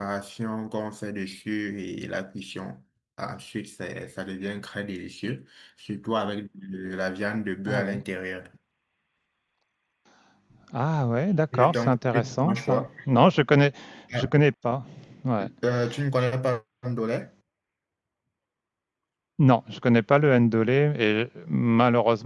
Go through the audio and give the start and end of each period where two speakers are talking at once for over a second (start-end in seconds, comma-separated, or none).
11.5-12.9